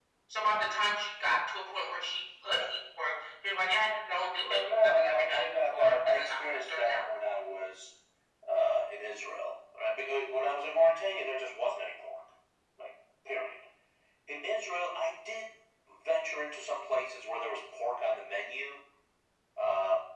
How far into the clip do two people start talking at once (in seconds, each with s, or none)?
4.5 s